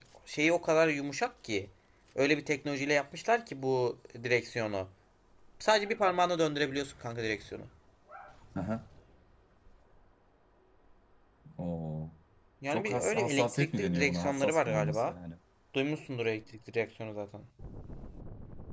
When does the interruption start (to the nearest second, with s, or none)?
13 s